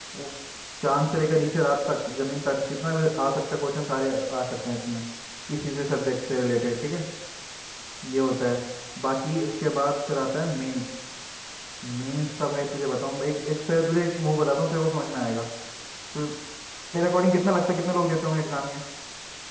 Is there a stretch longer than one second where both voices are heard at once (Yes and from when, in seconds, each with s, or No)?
No